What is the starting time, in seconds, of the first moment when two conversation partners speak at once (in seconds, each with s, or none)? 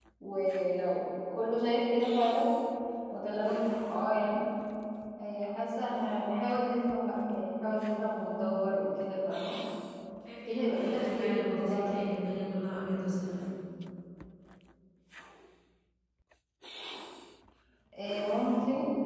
10.5 s